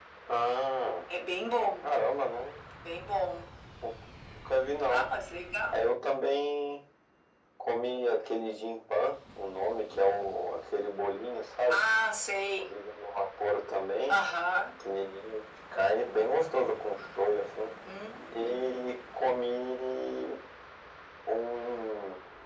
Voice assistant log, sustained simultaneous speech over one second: none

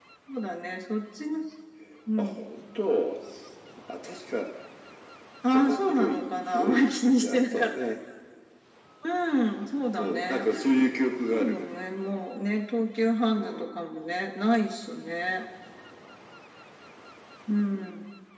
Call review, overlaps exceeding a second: present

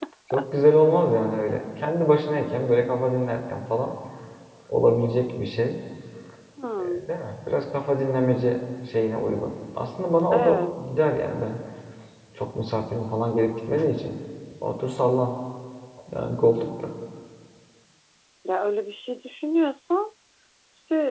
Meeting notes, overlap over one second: none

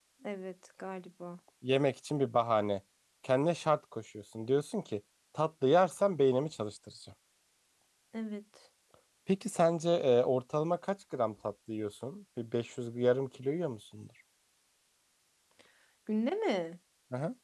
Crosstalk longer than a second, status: none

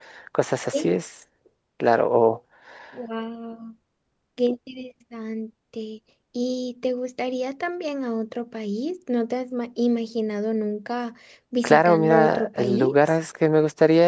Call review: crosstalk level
present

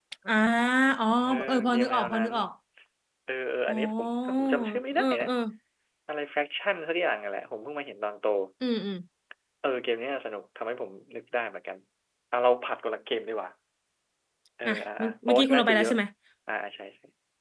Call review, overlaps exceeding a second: present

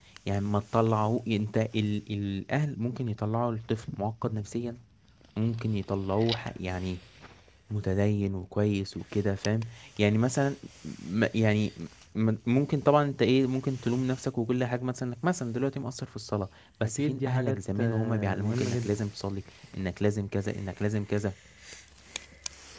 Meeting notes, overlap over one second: present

